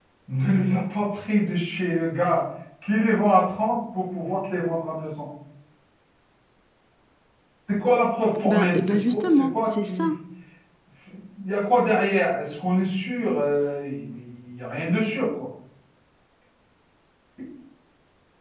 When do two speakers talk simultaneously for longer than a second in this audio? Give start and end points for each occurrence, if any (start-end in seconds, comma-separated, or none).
8.4-10.0